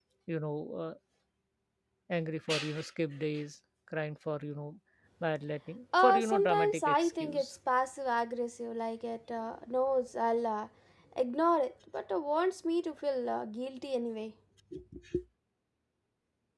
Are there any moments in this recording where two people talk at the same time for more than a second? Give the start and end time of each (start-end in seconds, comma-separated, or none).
6.0-7.5